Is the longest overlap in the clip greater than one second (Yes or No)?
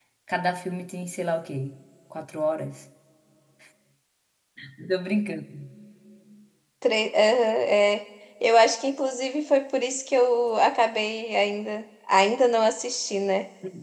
No